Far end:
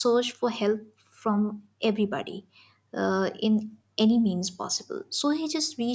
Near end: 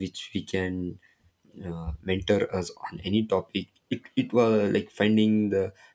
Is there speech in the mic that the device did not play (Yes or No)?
Yes